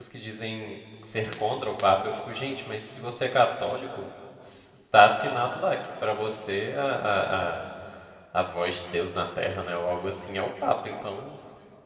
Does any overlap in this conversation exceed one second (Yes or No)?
No